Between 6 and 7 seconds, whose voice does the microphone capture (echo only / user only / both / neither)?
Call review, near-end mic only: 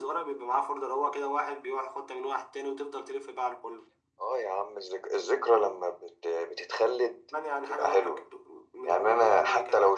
echo only